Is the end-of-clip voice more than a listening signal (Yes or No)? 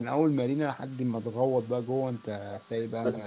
Yes